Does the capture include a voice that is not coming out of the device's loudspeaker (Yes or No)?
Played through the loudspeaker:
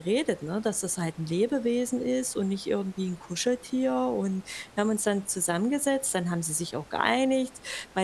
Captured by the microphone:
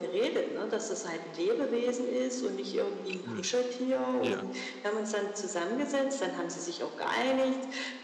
Yes